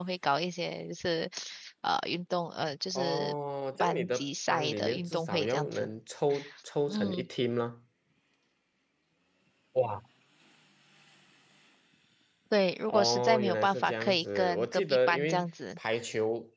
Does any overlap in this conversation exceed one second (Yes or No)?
Yes